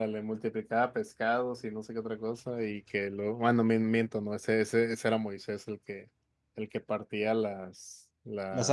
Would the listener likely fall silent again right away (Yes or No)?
Yes